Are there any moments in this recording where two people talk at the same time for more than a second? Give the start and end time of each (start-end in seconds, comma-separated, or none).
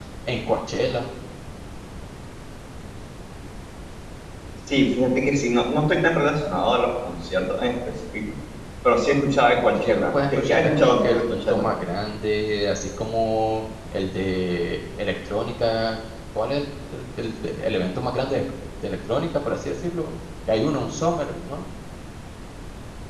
9.8-11.6